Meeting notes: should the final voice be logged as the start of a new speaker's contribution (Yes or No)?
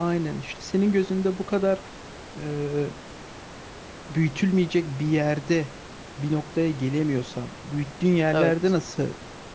No